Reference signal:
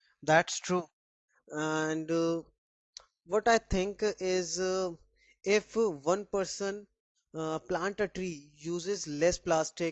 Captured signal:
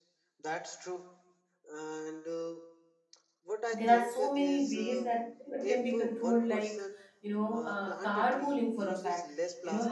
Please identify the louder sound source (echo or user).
user